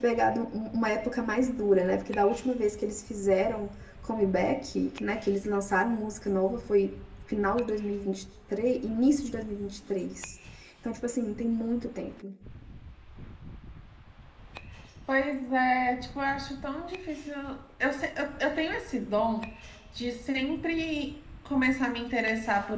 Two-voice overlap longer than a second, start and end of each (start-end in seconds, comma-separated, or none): none